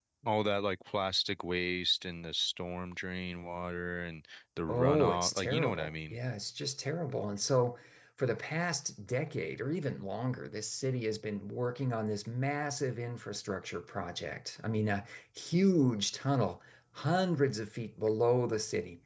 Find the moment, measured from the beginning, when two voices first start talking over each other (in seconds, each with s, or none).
4.7 s